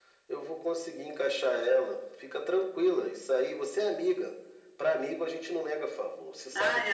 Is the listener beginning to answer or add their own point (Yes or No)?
Yes